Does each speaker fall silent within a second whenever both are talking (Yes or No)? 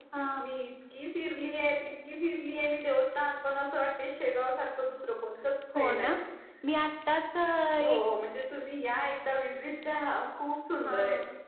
Yes